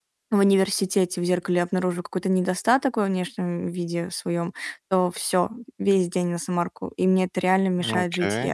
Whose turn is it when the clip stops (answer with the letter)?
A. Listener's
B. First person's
B